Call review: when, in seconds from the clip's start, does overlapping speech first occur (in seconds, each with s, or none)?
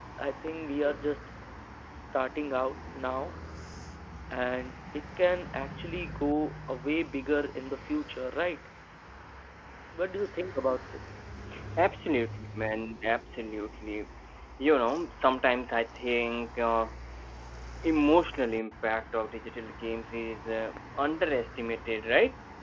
none